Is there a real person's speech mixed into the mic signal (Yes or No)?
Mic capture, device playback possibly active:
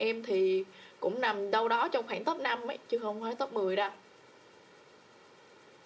No